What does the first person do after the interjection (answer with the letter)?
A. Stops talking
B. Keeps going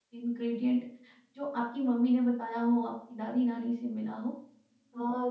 A